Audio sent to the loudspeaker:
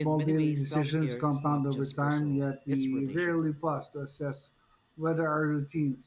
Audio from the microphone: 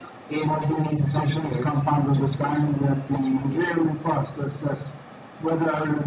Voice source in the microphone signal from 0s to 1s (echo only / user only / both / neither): echo only